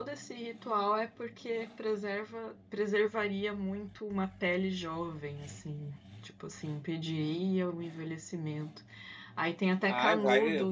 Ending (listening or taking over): taking over